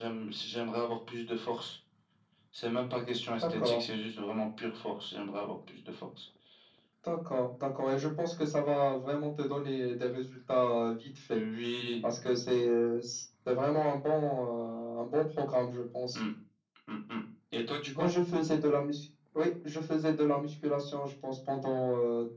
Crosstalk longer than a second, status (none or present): none